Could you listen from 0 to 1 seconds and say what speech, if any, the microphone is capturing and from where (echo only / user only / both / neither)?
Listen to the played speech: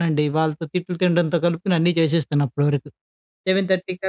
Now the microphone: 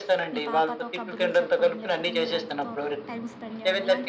both